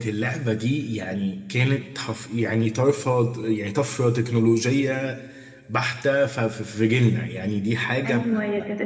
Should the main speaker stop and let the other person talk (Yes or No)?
Yes